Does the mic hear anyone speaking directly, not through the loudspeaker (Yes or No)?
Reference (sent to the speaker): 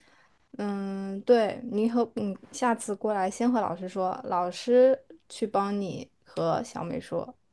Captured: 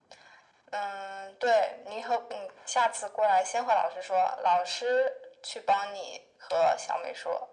No